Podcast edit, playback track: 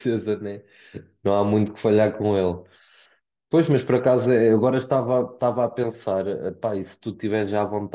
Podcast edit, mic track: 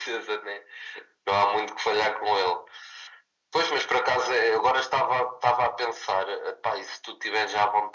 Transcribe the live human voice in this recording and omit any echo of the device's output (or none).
none